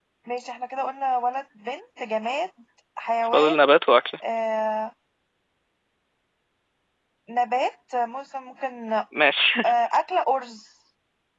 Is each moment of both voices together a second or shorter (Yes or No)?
Yes